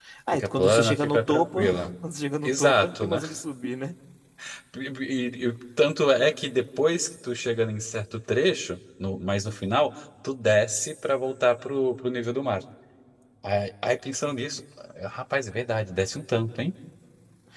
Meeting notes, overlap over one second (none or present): present